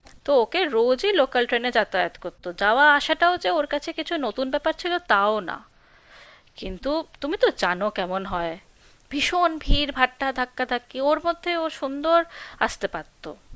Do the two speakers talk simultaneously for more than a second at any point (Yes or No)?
No